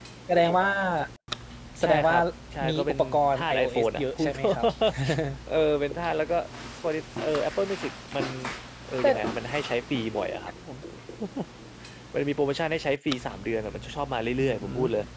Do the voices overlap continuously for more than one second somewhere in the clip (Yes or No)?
Yes